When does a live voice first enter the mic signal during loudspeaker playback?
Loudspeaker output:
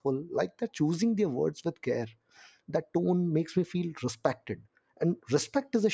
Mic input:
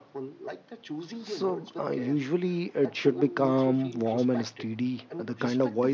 1.1 s

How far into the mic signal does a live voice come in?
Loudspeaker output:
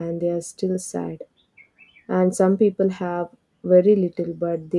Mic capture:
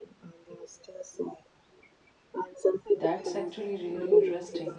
3.0 s

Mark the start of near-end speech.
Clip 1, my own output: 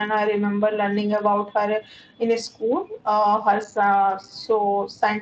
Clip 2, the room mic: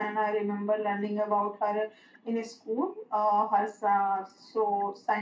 none

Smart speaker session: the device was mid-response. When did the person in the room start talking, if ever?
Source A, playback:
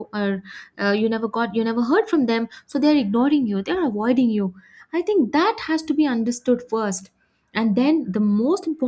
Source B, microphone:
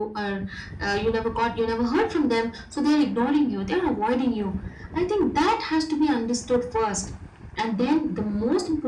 none

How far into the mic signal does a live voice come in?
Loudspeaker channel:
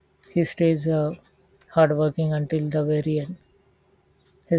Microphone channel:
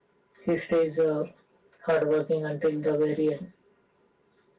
none

